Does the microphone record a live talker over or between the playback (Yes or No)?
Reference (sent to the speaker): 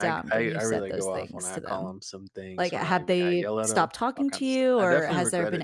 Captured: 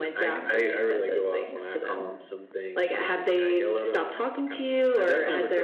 No